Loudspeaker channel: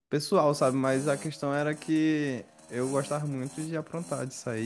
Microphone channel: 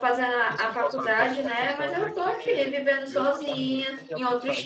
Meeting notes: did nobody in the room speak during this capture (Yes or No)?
No